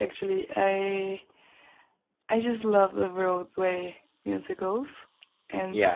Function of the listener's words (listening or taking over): listening